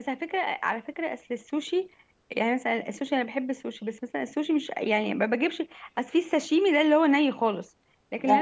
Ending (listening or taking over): listening